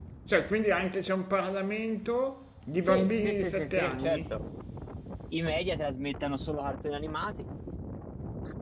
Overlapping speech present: Yes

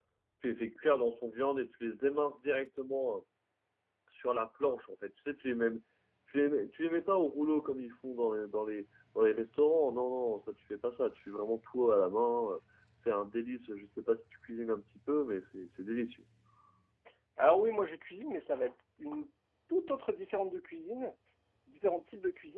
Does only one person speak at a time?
Yes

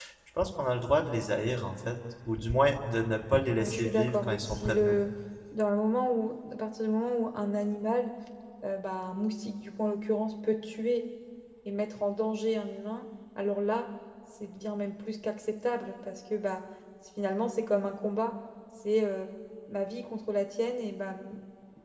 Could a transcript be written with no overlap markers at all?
No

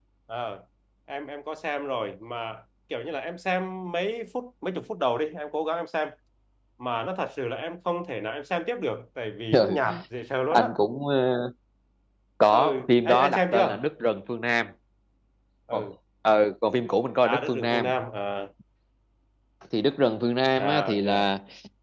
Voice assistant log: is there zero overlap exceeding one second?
No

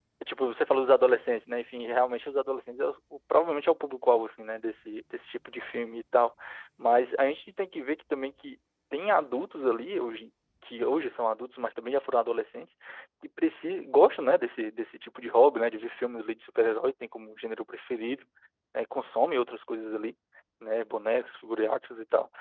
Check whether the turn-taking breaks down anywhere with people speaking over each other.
No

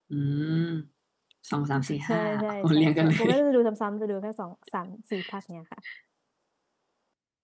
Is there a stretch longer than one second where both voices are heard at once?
Yes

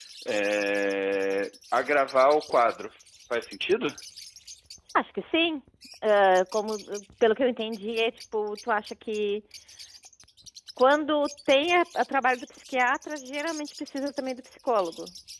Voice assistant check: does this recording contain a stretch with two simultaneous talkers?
No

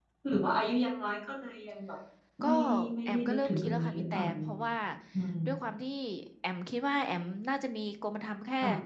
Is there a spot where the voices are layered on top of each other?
Yes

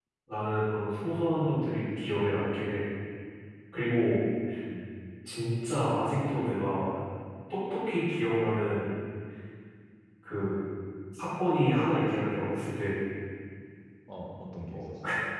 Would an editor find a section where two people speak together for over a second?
No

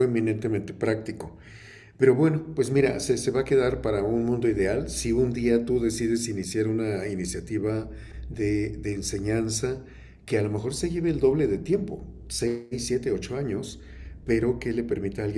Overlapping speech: No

